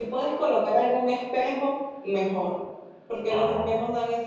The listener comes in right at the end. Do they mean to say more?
No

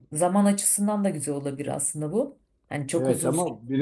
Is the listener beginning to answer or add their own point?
Yes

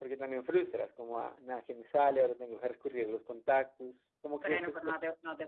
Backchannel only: No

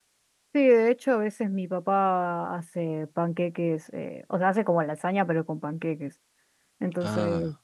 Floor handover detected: No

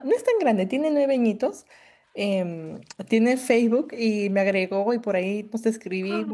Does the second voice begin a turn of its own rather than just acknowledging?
No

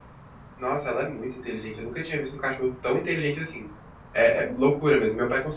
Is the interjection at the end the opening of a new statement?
No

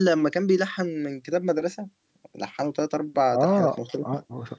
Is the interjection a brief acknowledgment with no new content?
No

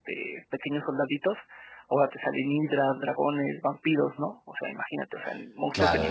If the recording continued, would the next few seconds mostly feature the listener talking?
Yes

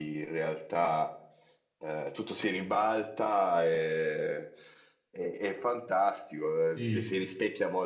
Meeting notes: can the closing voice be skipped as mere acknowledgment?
Yes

